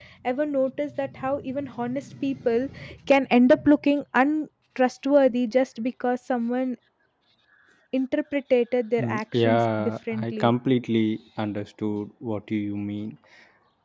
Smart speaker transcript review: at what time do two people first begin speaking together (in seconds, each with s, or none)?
9.0 s